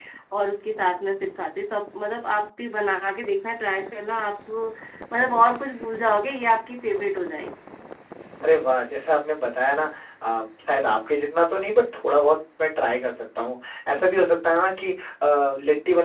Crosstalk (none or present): none